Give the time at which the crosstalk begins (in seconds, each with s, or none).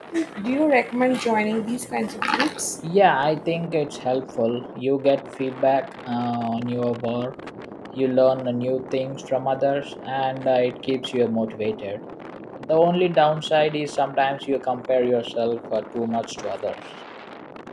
none